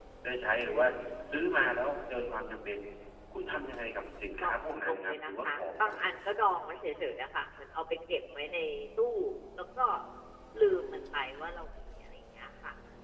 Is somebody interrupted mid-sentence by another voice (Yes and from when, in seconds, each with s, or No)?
Yes, from 4.4 s